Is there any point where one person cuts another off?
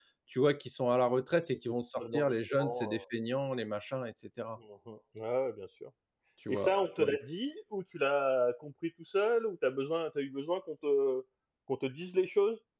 Yes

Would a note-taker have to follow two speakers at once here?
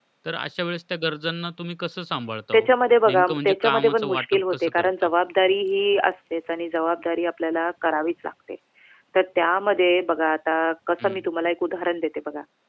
Yes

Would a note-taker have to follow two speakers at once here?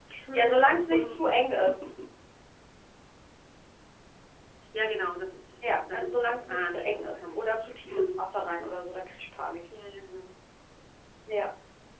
Yes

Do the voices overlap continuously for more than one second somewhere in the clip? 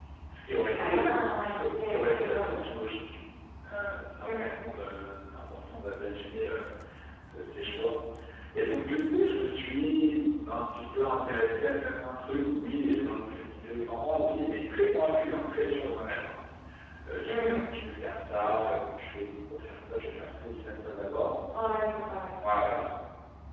Yes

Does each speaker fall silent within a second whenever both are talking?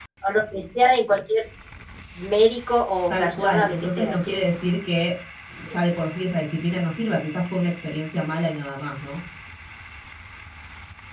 No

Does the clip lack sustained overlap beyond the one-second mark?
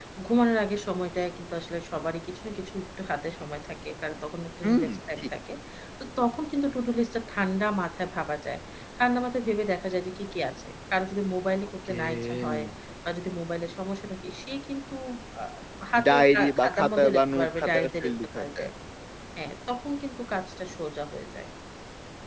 No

